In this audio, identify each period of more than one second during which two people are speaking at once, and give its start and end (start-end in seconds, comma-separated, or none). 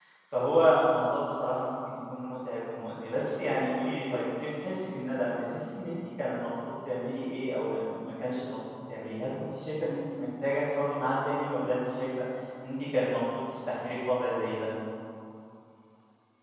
none